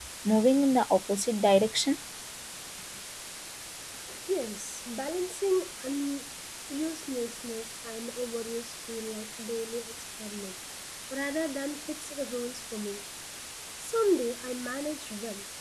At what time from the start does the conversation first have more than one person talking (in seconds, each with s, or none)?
none